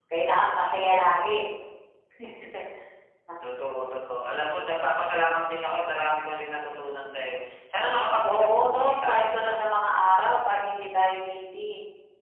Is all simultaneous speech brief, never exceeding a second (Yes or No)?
No